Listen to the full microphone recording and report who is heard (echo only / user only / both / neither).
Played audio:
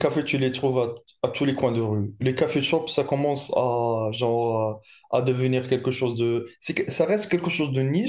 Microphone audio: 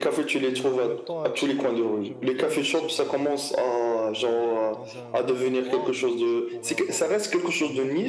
both